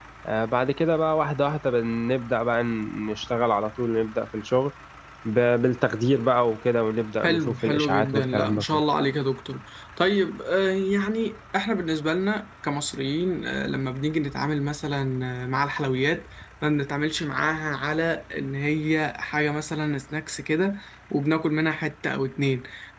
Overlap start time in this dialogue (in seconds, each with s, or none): 7.2 s